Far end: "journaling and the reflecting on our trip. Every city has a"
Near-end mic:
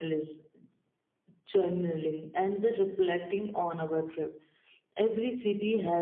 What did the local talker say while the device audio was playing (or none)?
none